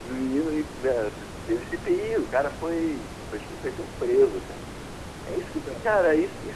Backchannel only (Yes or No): Yes